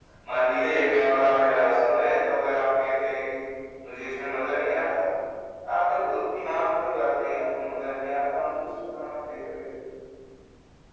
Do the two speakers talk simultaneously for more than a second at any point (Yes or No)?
Yes